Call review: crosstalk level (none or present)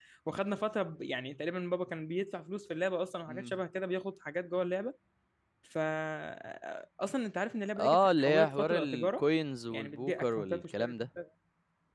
present